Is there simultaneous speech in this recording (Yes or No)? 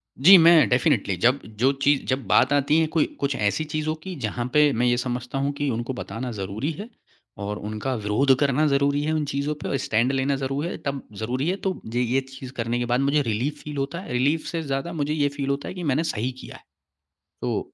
No